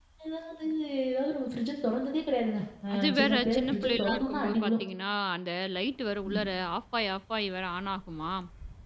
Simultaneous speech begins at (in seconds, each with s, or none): 2.9 s